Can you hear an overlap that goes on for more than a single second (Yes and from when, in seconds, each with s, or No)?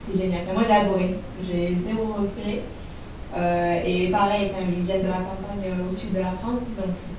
No